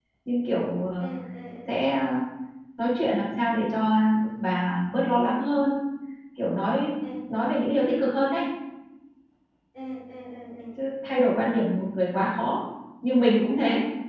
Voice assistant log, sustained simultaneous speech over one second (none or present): none